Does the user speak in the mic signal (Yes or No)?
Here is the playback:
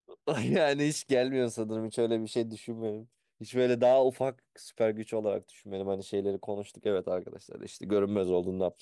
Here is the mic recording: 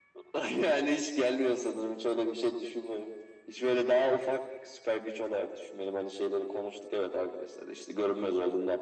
No